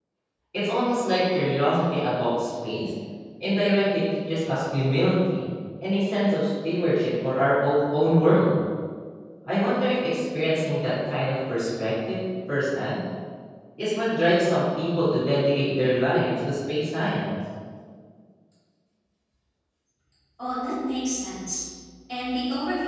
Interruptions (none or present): none